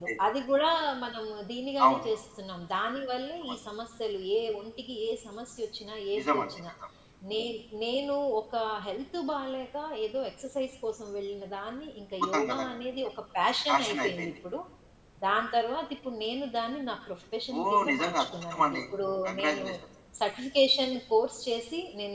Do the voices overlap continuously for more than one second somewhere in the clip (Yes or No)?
Yes